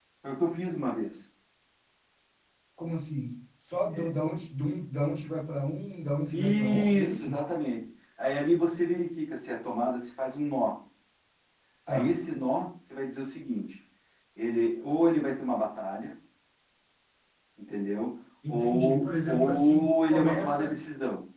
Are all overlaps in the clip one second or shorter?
No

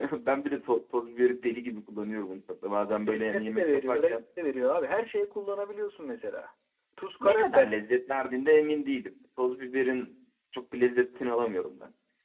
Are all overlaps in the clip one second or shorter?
No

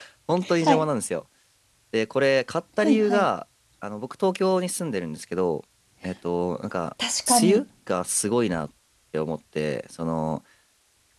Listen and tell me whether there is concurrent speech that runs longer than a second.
No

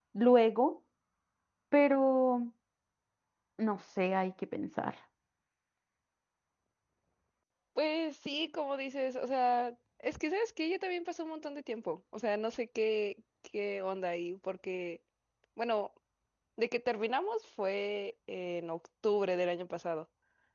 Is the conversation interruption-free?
Yes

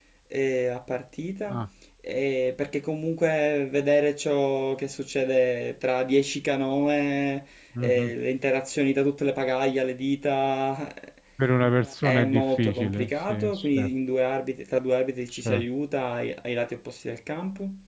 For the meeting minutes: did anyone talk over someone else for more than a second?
Yes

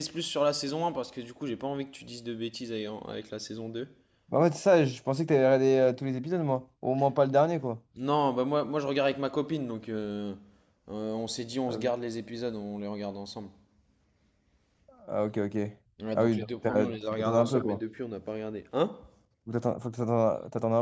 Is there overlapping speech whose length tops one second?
Yes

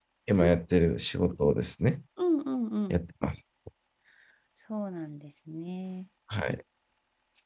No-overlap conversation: Yes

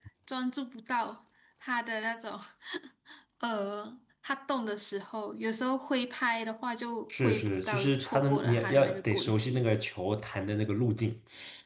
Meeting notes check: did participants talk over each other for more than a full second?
Yes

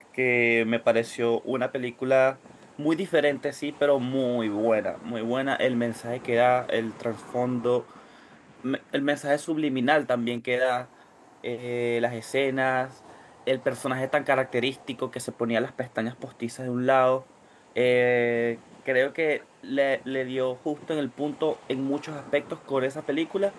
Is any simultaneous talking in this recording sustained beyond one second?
No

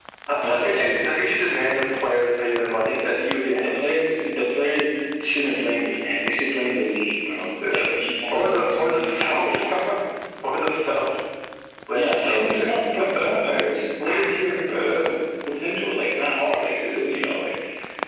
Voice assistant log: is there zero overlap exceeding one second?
No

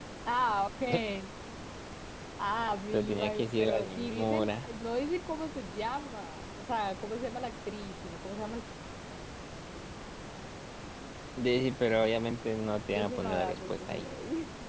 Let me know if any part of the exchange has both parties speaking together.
Yes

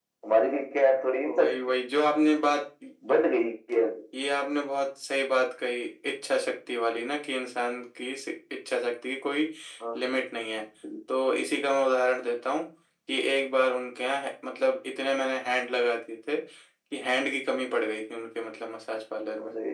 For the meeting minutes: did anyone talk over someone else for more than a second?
No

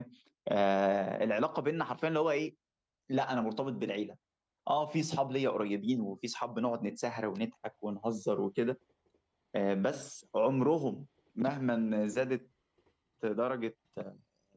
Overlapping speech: No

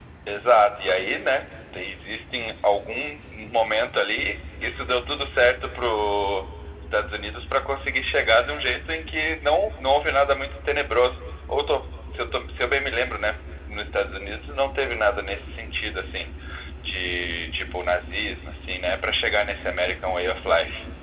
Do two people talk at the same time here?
No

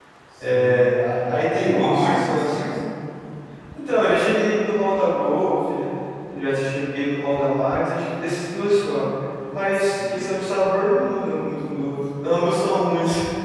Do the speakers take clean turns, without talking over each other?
No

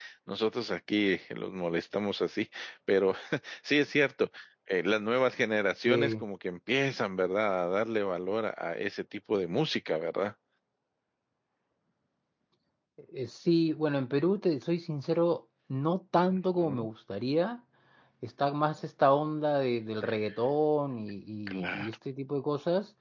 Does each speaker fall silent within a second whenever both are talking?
Yes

